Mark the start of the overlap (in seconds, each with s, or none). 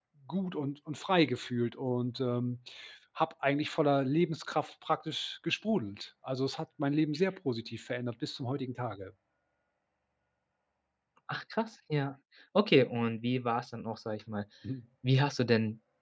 none